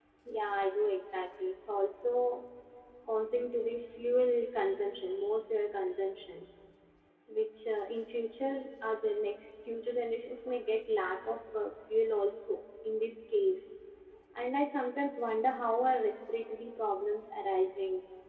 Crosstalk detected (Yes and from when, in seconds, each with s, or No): No